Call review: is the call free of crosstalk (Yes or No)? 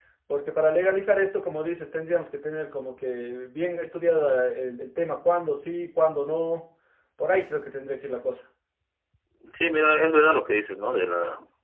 Yes